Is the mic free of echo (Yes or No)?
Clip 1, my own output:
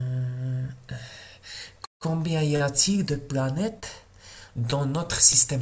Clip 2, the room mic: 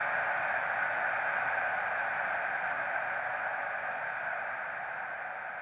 Yes